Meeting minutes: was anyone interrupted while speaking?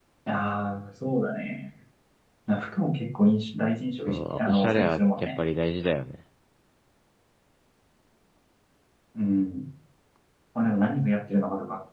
Yes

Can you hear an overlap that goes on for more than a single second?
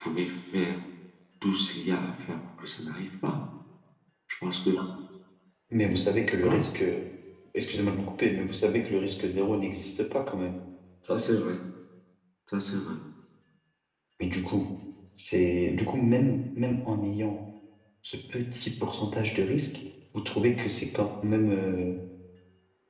No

